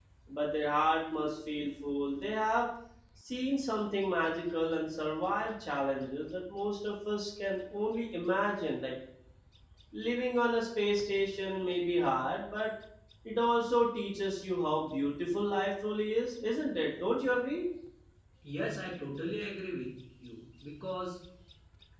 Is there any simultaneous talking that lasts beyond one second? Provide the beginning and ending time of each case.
none

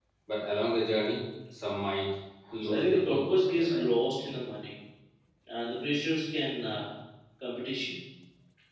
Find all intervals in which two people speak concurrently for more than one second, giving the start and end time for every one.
2.6-3.9

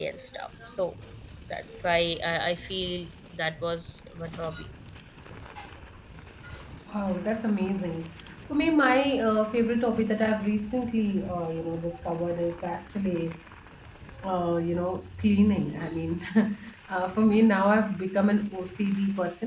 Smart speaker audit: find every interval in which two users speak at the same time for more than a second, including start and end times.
none

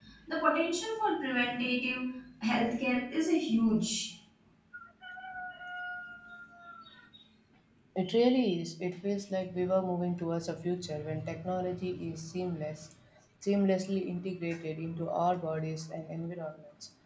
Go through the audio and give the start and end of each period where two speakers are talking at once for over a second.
none

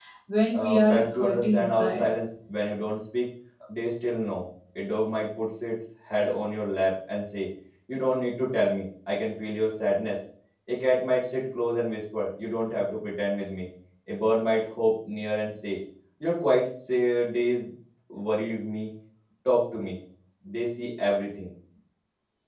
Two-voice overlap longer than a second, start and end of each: 0.5-2.1

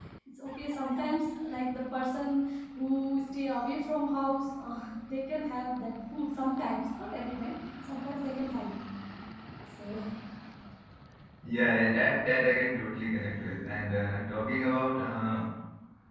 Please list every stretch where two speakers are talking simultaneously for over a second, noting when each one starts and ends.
none

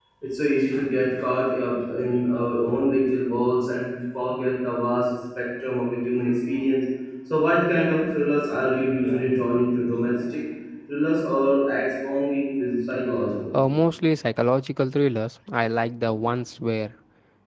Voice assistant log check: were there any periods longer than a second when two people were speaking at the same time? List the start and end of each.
none

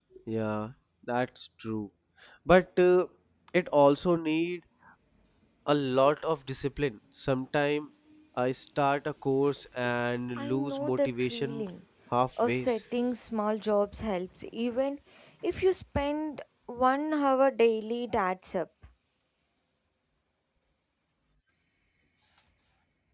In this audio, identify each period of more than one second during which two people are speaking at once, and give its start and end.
10.4-11.6

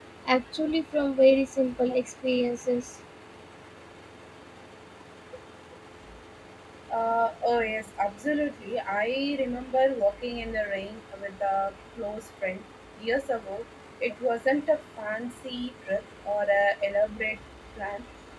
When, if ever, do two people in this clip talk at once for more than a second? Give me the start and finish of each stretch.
none

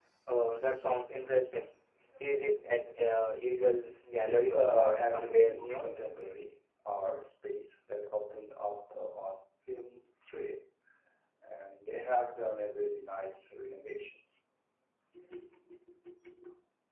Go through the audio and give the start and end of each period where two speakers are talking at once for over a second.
4.2-5.8

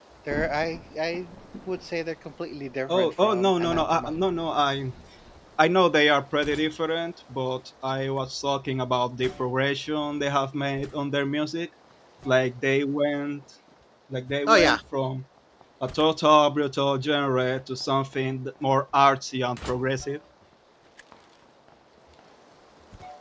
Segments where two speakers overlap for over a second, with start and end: 2.9-4.1

